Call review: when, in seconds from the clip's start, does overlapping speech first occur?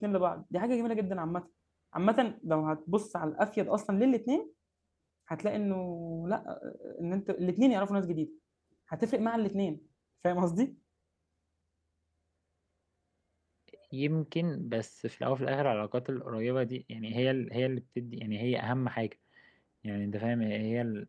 none

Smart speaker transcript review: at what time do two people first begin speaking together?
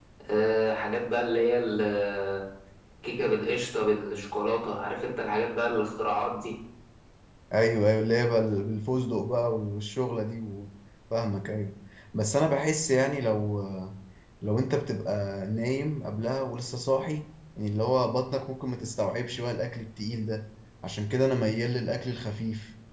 none

